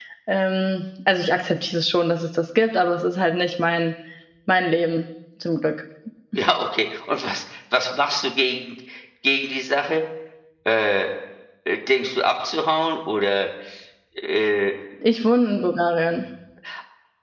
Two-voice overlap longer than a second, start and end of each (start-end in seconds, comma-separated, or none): none